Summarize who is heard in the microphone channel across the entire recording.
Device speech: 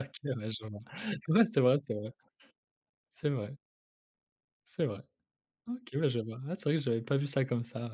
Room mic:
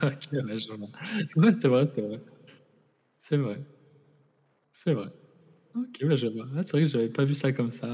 echo only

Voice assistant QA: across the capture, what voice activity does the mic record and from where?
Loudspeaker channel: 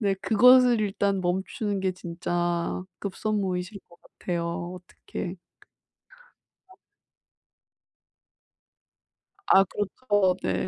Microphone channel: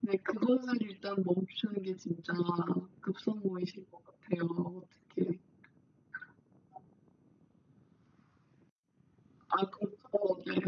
echo only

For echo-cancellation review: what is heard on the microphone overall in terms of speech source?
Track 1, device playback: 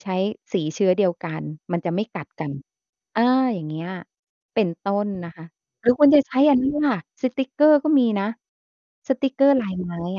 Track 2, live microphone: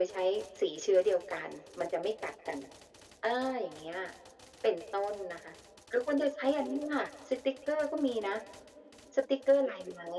echo only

